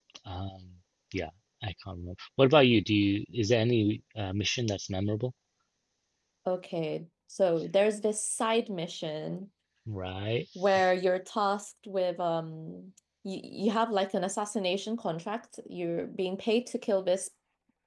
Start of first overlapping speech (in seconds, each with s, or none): none